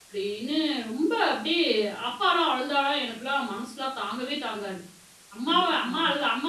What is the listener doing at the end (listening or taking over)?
listening